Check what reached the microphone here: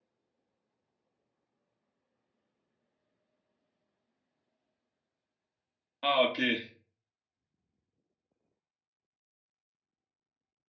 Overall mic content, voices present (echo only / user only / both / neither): user only